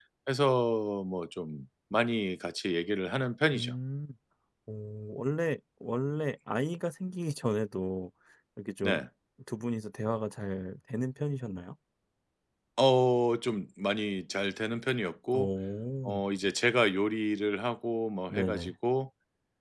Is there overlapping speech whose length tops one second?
No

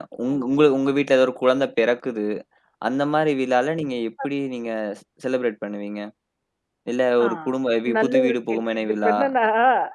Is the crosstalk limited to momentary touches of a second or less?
No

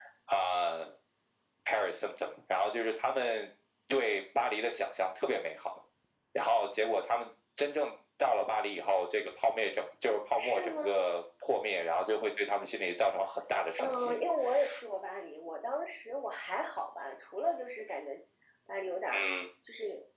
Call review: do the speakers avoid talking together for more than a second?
Yes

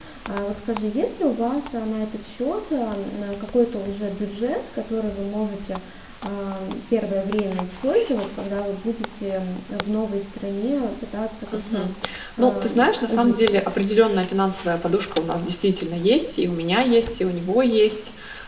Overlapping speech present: Yes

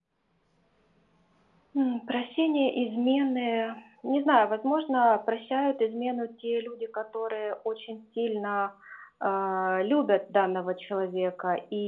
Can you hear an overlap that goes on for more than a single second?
No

